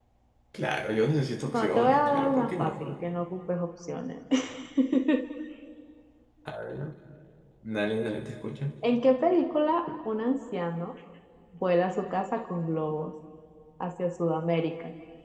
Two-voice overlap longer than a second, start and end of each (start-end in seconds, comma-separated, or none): 1.5-2.9